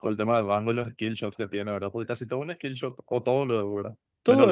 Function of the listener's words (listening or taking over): taking over